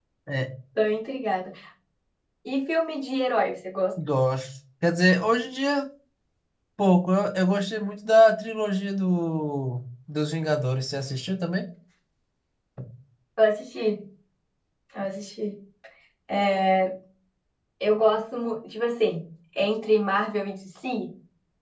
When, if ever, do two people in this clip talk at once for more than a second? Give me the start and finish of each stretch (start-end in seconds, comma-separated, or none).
none